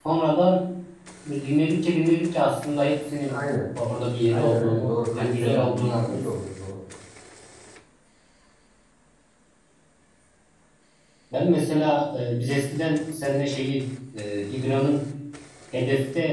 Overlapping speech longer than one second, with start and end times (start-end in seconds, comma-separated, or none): 4.3-6.3